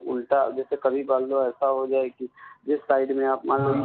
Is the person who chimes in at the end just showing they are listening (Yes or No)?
Yes